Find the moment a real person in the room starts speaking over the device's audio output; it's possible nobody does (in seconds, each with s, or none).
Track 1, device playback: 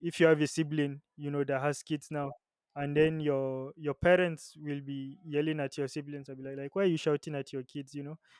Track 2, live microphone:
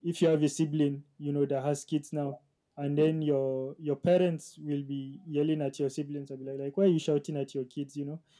none